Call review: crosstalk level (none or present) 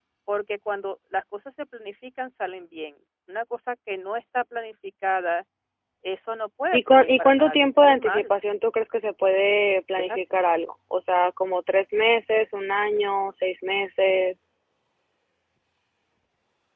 present